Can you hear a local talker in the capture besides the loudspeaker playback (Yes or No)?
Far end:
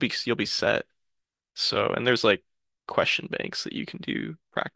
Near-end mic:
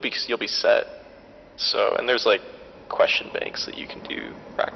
No